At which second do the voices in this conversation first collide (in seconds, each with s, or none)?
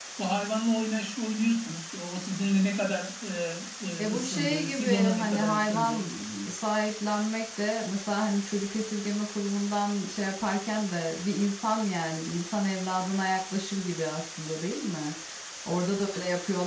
4.0 s